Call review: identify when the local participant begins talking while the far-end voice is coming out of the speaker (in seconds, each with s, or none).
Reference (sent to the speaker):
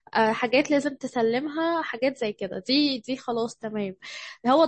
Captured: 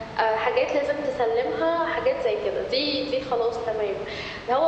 none